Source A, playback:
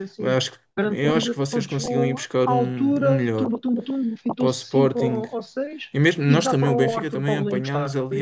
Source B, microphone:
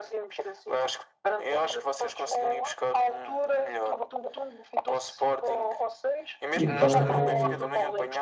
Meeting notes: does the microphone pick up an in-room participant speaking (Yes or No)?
Yes